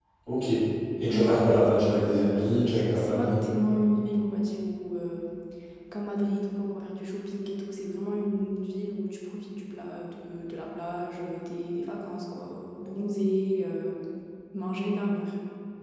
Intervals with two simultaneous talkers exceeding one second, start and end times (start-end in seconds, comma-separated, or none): 1.1-3.3